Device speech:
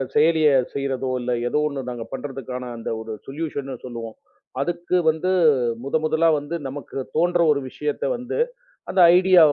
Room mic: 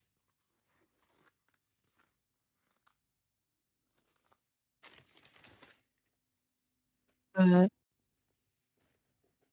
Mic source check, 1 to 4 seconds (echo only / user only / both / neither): neither